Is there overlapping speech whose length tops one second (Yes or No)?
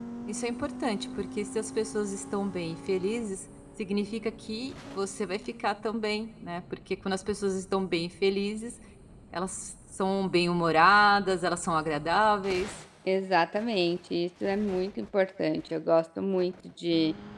No